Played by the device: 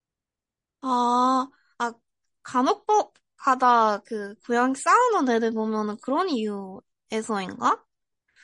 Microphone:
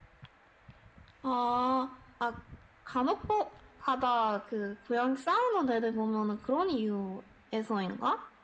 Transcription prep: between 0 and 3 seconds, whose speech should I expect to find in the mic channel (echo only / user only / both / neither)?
echo only